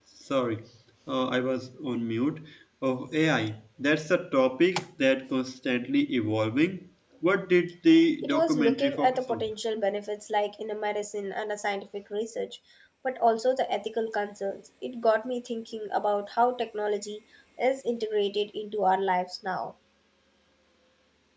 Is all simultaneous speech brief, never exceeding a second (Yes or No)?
No